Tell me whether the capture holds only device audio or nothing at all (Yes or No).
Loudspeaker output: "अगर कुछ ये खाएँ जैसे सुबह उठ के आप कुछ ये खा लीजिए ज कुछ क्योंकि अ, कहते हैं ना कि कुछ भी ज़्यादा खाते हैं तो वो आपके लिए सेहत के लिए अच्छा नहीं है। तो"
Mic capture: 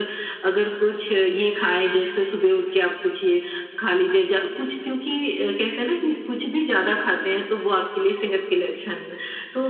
Yes